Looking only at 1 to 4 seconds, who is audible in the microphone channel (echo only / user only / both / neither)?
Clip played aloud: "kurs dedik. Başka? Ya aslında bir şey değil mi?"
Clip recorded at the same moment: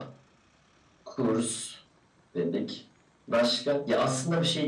echo only